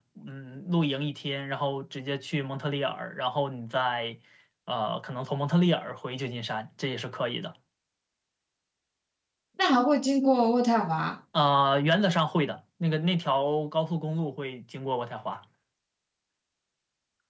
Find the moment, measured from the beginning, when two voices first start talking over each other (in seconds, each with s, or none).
none